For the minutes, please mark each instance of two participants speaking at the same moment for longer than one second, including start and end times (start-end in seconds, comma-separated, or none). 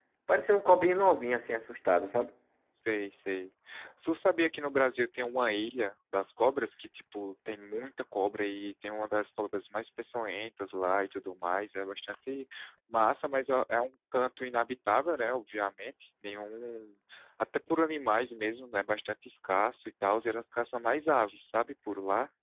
none